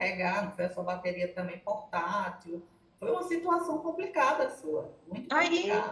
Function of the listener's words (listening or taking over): taking over